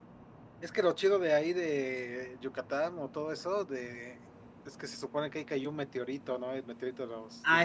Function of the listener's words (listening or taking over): taking over